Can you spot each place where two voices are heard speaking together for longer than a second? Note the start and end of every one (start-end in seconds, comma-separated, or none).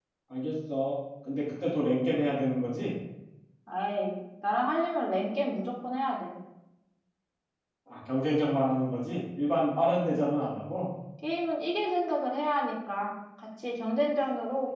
none